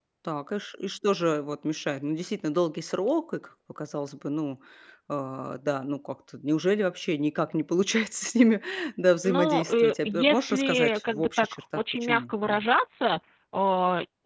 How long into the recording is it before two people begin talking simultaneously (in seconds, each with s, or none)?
9.2 s